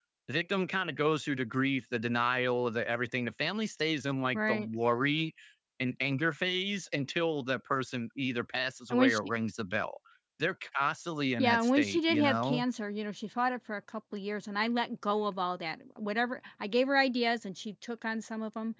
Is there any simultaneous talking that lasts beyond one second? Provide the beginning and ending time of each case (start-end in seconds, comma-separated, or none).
11.4-12.6